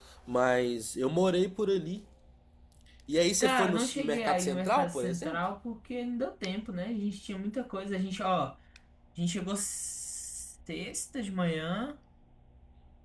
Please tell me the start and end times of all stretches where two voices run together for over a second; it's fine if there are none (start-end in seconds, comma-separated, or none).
3.4-5.4